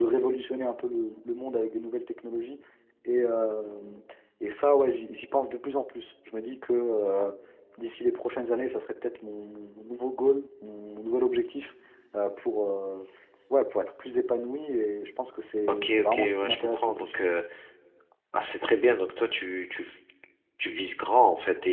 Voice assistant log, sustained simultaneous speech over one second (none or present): present